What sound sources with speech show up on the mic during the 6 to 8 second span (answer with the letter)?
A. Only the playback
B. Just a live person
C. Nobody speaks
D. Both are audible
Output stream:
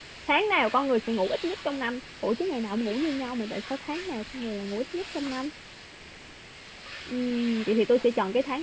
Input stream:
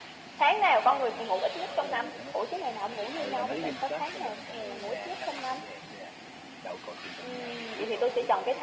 D